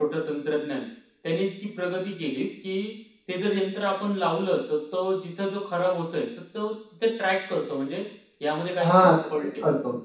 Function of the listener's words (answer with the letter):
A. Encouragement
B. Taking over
B